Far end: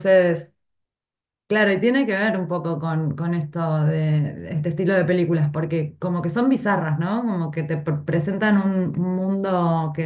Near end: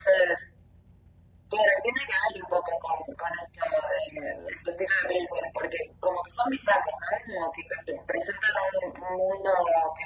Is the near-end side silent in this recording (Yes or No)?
Yes